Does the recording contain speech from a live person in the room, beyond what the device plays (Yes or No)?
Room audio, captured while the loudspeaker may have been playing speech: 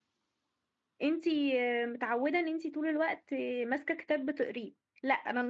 Yes